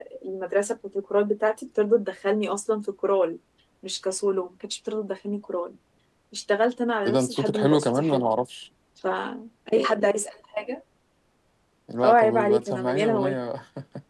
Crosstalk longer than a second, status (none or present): present